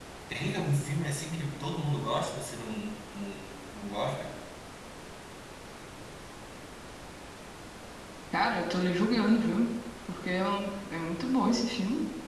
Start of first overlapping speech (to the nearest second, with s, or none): none